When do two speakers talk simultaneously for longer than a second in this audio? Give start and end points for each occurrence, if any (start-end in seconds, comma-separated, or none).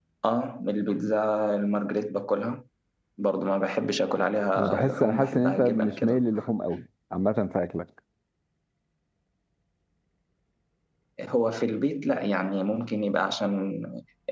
4.5-6.2